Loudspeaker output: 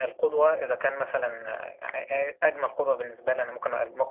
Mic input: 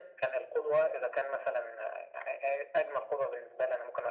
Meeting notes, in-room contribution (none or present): none